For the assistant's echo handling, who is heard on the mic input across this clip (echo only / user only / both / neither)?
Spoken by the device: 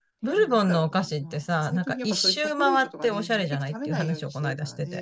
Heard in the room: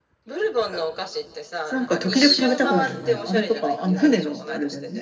both